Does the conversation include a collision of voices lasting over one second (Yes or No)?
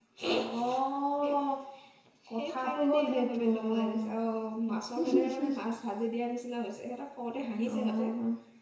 Yes